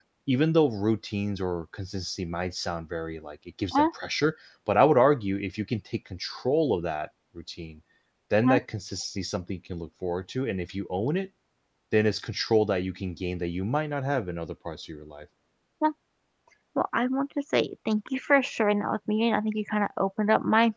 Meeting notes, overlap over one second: none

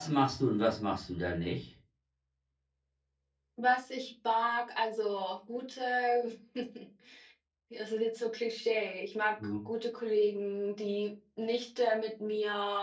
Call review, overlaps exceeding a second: none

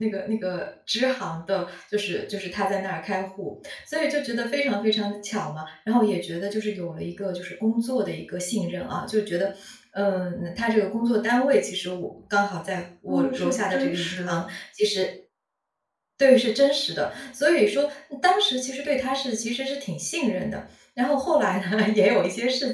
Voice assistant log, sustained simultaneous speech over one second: present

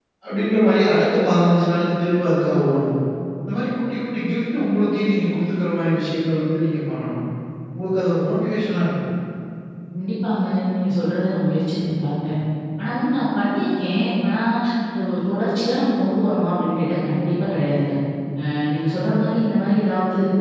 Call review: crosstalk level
none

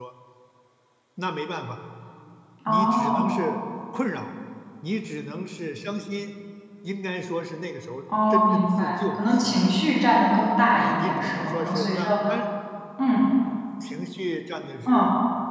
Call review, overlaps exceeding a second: present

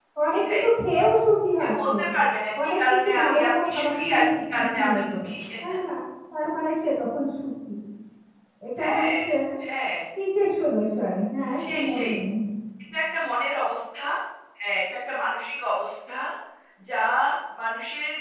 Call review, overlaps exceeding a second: present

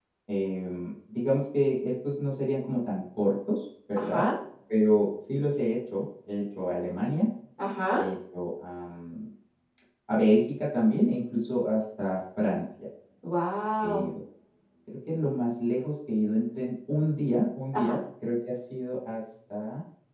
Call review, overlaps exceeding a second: none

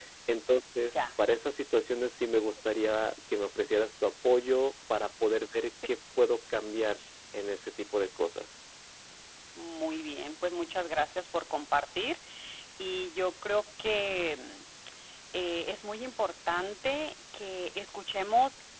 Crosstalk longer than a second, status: none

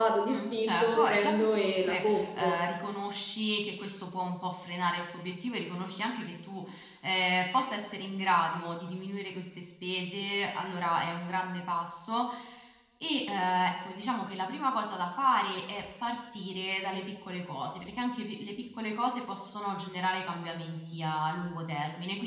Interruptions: present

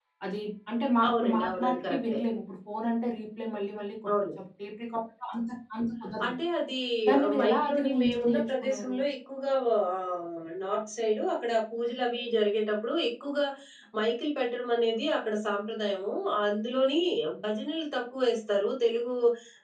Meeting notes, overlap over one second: present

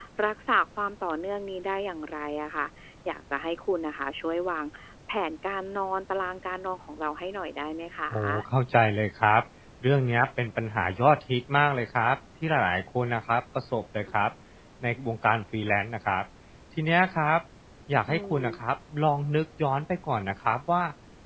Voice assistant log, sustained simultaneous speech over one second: none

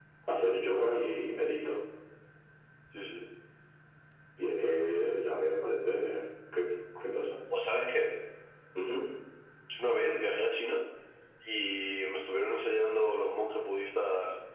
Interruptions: none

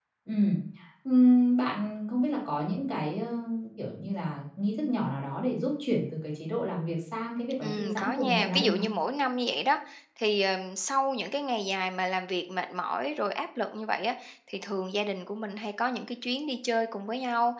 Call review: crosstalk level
present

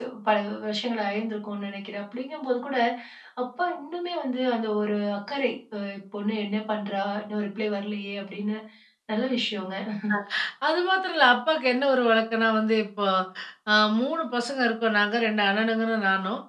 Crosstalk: none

